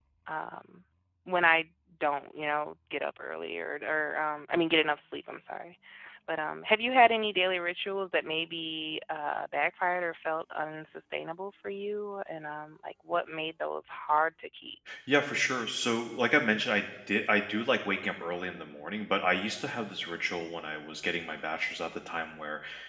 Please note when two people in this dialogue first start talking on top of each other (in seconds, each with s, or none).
none